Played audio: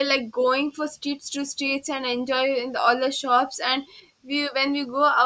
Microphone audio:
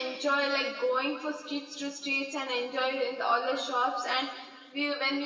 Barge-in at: none

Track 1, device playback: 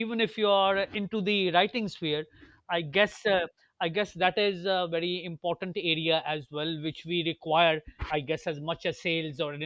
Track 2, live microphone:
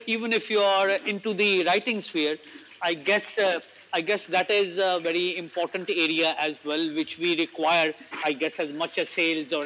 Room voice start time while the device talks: none

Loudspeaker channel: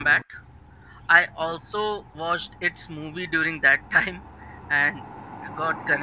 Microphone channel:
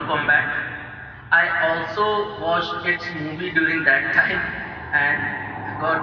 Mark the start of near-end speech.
none

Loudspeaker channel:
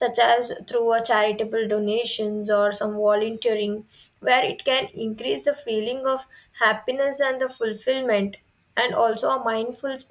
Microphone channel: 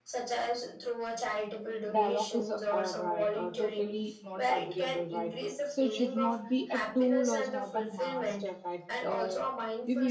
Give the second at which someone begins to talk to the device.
1.9 s

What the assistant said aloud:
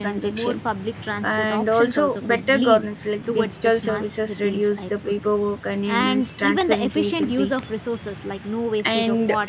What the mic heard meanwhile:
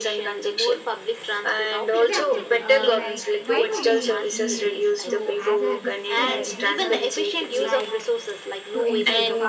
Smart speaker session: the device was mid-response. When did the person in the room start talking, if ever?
1.9 s

